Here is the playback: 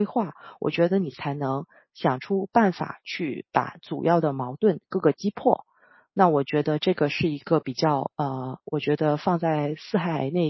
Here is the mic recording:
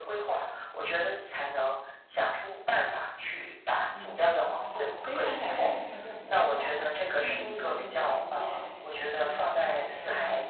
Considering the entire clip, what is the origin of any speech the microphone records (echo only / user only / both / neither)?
both